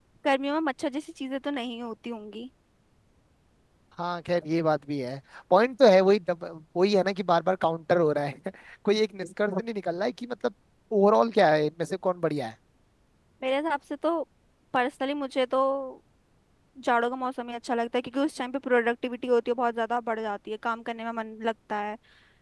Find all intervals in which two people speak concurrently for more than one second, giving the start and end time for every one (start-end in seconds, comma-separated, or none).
none